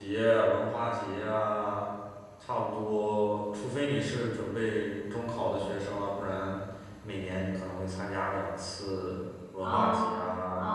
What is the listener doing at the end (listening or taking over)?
taking over